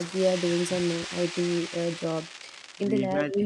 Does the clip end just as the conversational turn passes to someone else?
No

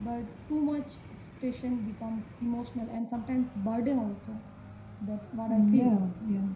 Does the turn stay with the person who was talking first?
No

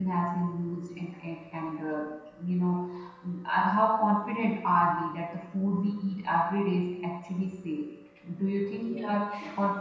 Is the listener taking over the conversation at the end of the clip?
No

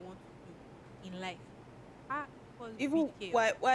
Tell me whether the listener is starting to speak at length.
Yes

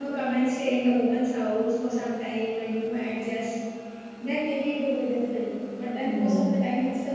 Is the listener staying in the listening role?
Yes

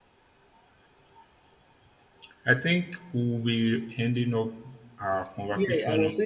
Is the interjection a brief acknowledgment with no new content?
No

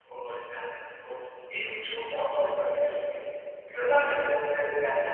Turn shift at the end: No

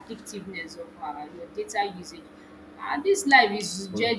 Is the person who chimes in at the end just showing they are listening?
Yes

